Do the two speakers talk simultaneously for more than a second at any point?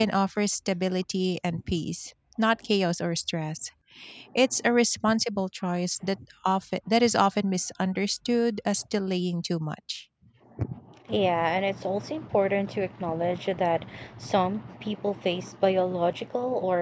No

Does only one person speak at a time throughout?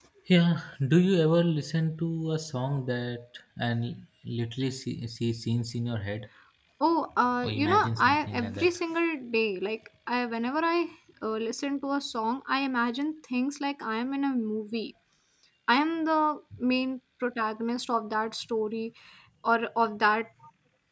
No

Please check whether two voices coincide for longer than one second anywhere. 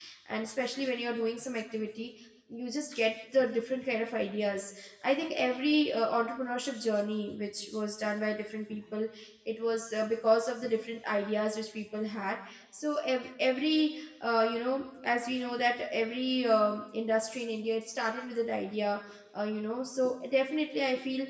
No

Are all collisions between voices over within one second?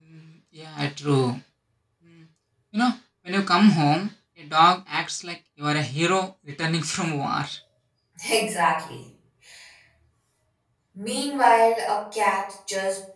Yes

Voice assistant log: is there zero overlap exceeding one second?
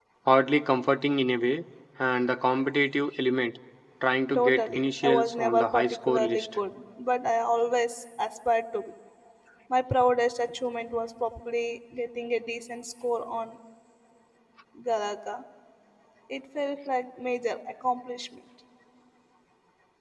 No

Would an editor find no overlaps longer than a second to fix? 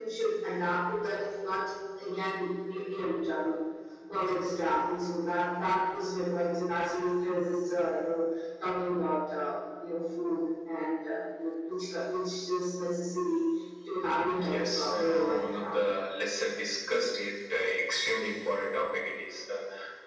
No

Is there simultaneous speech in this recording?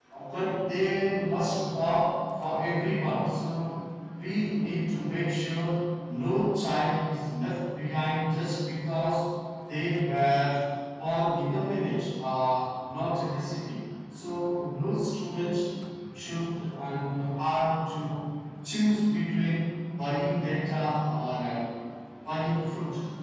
No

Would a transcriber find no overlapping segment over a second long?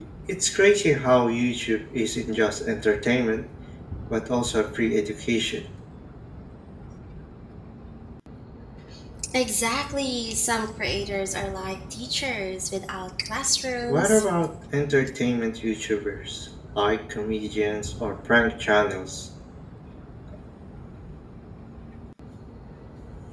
Yes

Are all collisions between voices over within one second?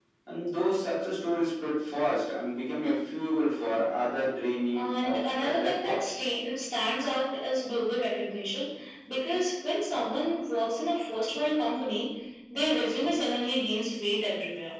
No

